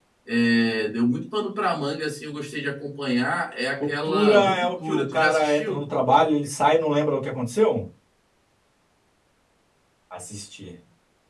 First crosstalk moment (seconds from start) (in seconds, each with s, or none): 3.8 s